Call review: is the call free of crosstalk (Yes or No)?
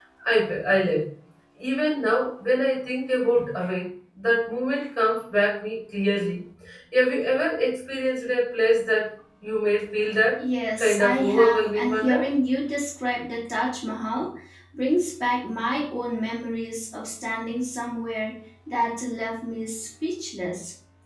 No